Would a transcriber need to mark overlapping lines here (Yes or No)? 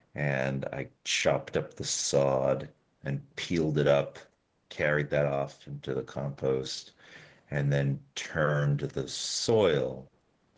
No